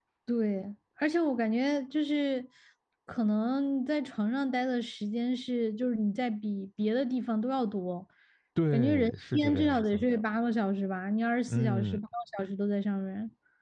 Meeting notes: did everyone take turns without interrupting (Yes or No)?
No